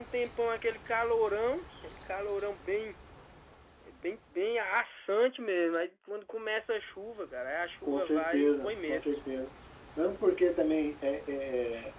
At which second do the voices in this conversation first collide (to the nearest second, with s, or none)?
8 s